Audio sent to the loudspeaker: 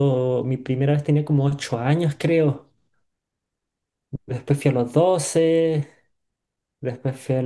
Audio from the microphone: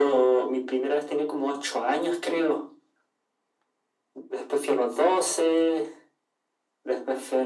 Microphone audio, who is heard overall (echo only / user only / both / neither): echo only